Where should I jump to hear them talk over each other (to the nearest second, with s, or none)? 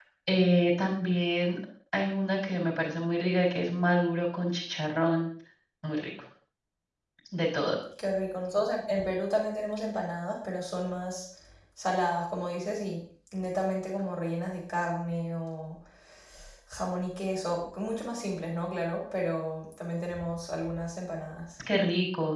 none